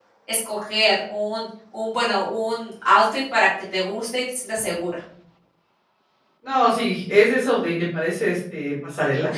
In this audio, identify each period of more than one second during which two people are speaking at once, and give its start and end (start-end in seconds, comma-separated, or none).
none